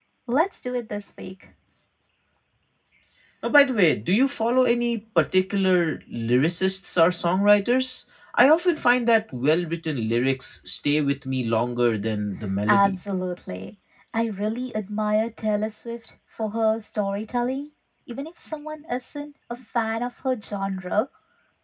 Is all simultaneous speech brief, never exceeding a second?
Yes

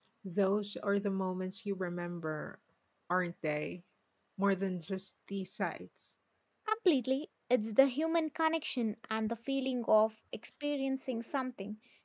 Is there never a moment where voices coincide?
Yes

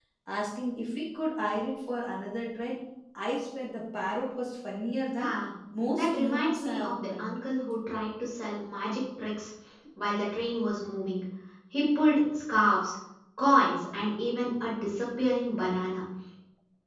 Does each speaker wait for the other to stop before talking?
No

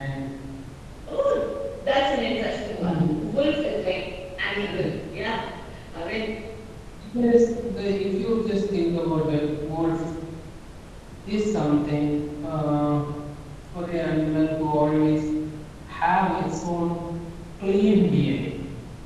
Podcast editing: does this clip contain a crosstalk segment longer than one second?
No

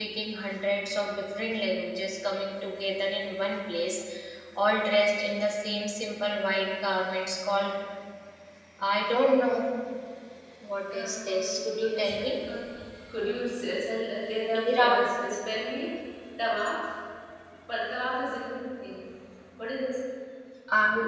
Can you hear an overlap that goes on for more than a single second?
Yes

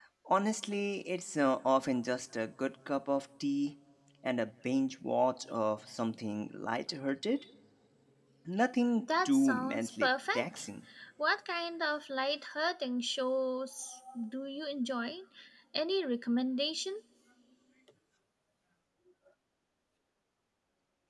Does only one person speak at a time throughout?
No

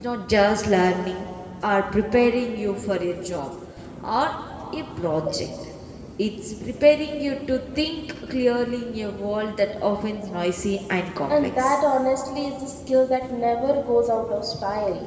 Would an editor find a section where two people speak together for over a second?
No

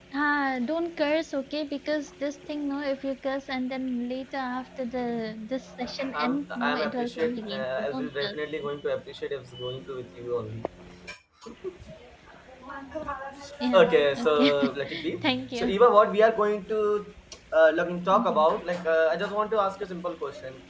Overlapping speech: Yes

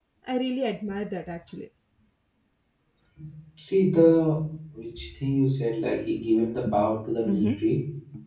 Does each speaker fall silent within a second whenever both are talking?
Yes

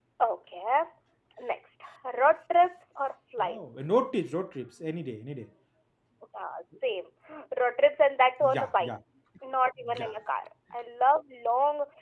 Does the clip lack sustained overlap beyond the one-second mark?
Yes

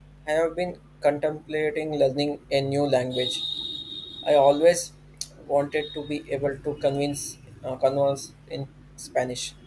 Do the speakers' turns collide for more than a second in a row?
No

